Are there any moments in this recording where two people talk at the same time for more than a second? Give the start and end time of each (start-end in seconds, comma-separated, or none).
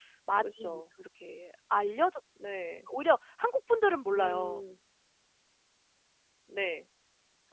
none